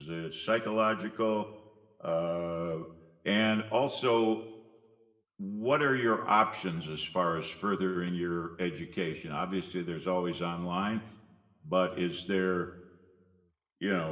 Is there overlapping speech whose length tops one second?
No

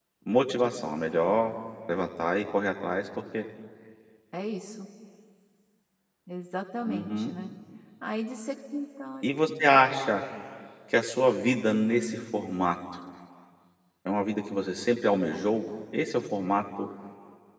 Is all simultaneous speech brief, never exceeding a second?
Yes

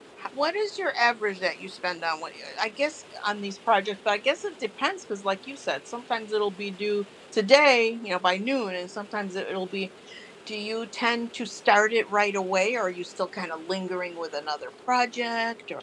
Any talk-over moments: No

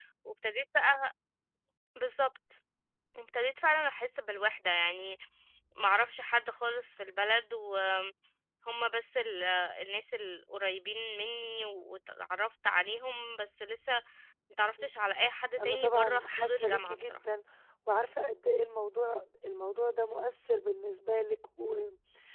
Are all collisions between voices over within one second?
No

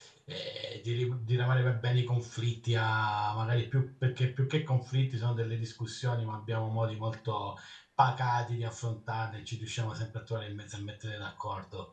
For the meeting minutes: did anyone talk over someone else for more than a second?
No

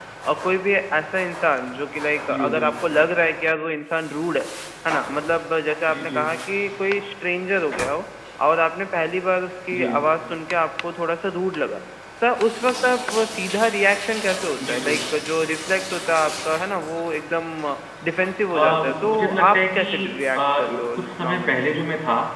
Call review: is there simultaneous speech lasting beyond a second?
Yes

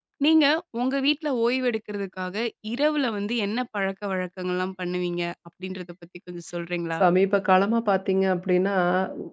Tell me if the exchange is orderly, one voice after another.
Yes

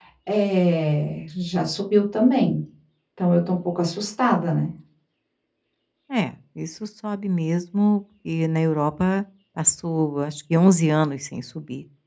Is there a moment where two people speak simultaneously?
No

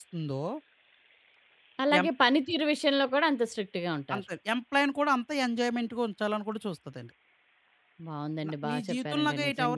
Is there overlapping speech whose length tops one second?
Yes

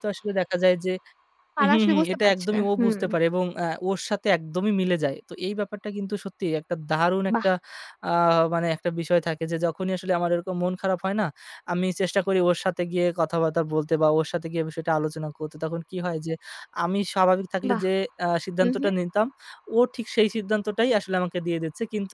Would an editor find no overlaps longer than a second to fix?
No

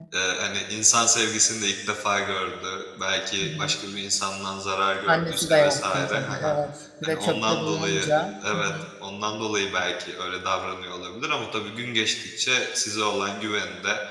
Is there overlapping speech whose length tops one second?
Yes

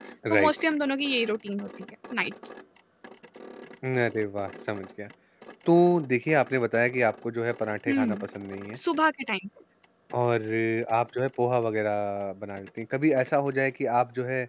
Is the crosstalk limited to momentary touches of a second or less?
Yes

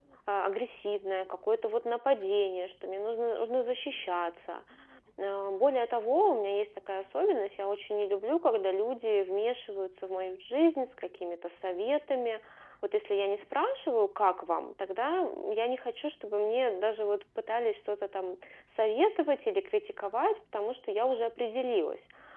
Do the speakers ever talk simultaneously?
No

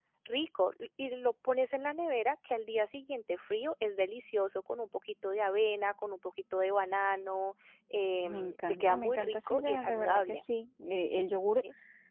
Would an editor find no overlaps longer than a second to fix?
No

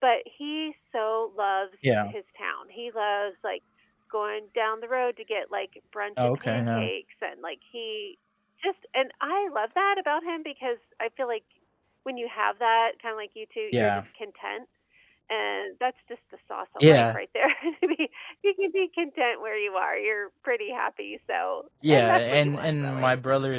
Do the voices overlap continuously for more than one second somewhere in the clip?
Yes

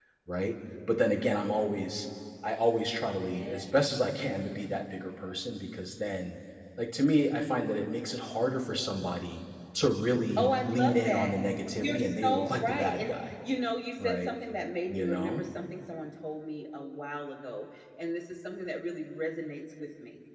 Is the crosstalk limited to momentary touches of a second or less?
No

